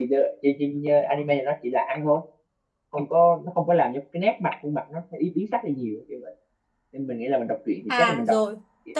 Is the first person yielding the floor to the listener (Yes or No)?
Yes